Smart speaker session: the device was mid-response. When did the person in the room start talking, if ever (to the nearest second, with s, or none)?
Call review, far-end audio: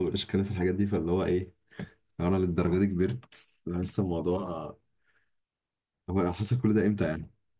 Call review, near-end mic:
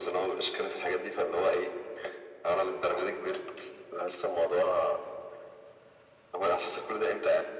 none